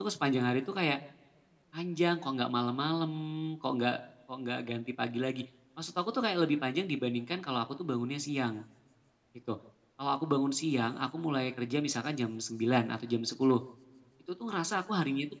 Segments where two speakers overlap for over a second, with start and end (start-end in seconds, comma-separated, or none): none